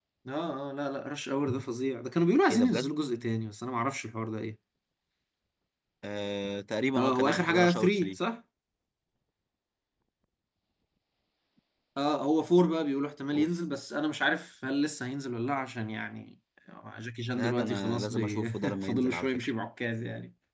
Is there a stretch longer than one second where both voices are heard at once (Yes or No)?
Yes